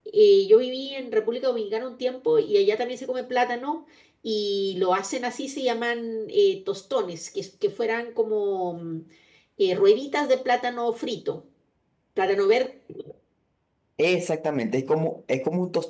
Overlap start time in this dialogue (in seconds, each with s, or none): none